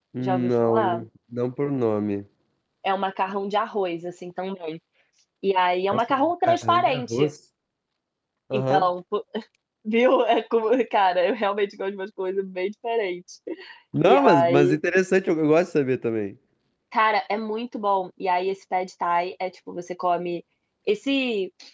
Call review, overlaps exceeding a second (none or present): present